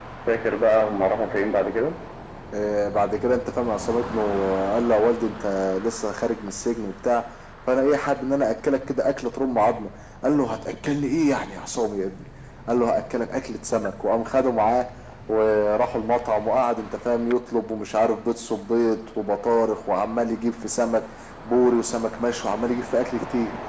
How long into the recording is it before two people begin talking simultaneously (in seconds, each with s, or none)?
none